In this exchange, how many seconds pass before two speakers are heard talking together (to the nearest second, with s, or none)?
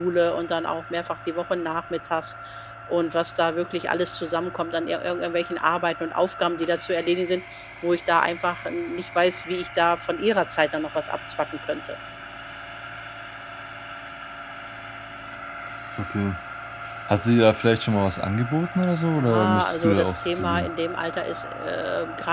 19 s